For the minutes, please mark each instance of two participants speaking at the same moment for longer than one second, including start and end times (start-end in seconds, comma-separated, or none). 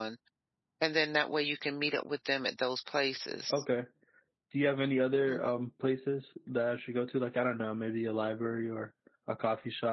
none